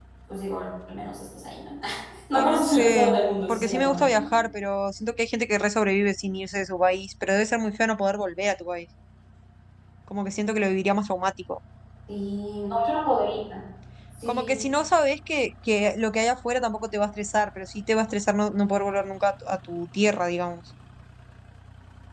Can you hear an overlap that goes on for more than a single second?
Yes, from 2.3 s

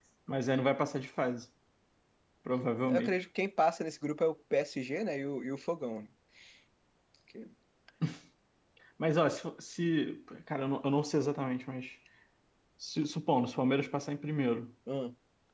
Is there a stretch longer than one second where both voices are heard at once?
No

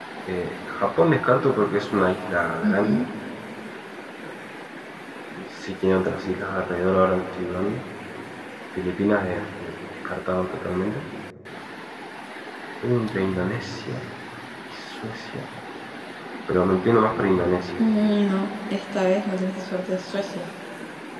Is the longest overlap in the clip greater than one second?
No

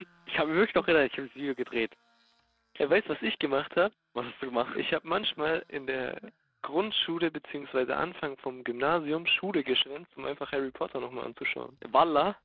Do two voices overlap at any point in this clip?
No

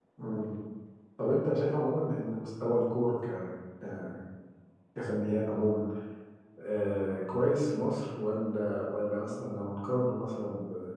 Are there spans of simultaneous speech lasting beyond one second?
No

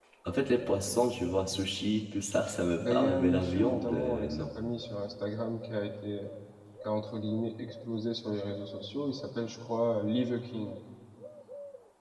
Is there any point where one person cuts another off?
Yes, from 2.8 s

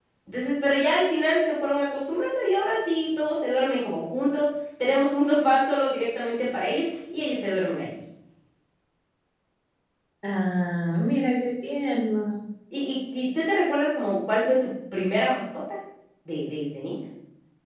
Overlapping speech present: No

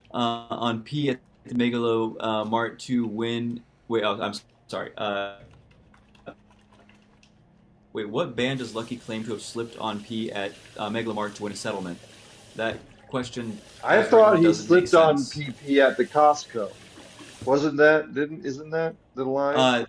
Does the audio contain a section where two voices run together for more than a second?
Yes, from 13.8 s

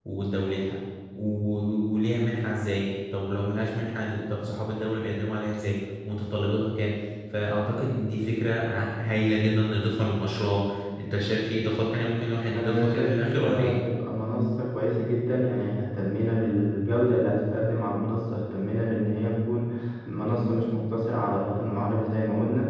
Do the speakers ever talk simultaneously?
Yes, from 12.5 s

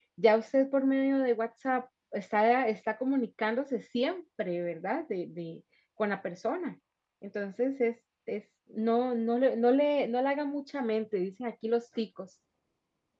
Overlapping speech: No

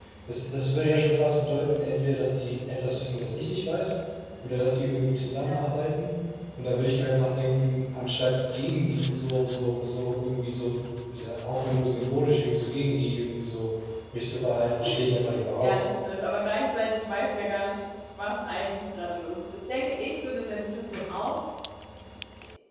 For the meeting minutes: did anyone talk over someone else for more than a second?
No

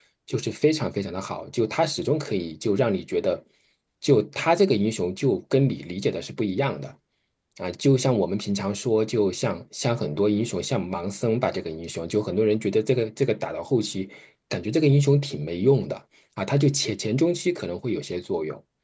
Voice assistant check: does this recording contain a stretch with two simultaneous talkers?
No

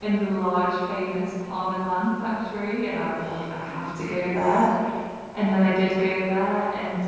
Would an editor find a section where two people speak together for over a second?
Yes, from 3.1 s

